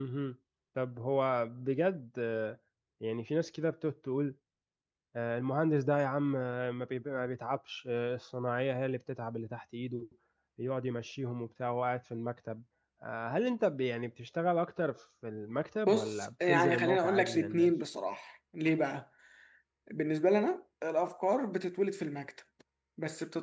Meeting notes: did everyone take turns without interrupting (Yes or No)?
No